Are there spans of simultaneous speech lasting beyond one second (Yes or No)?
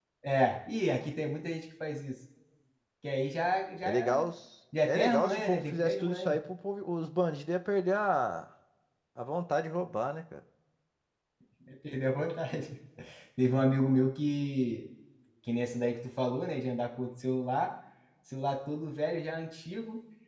Yes